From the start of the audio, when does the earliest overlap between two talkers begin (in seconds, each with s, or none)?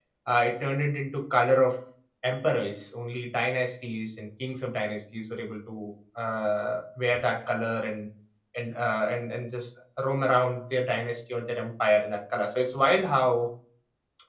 none